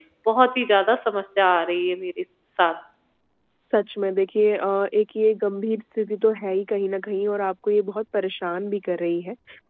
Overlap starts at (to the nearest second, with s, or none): none